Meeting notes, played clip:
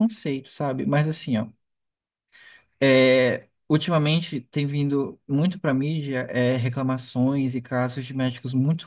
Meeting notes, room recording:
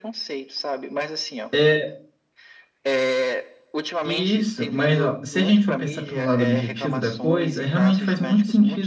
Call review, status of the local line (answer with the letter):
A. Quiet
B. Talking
B